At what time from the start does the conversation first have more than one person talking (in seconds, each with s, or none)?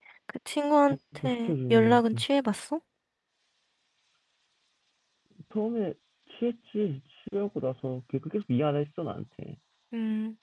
0.9 s